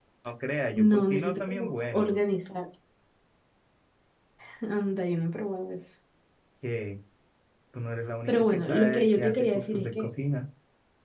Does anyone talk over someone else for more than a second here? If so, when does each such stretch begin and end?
0.9-2.1, 8.3-10.1

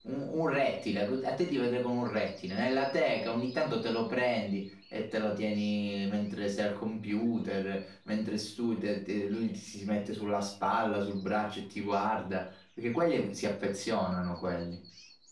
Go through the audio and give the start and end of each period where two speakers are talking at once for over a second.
none

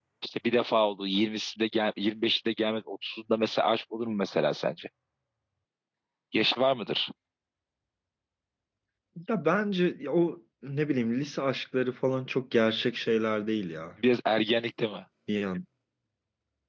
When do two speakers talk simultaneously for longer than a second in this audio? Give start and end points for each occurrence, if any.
none

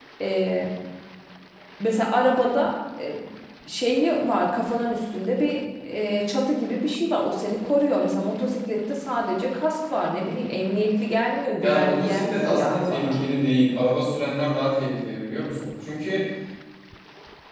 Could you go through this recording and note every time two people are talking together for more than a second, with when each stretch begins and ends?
11.6-13.2

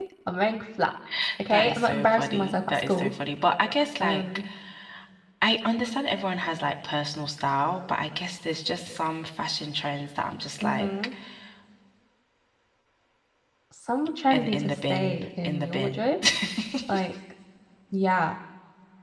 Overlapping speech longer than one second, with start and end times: 1.5-3.1, 14.3-16.0

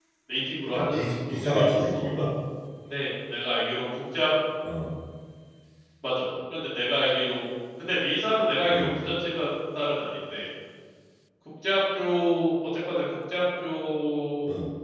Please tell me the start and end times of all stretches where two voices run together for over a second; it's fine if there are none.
0.7-2.0

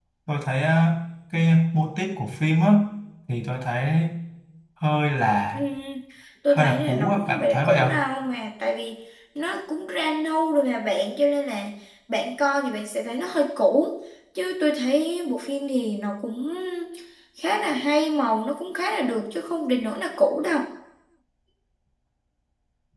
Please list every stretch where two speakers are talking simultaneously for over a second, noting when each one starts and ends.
6.5-7.9

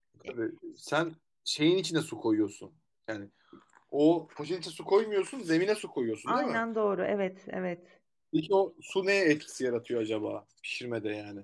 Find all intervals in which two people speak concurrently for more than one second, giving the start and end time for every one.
none

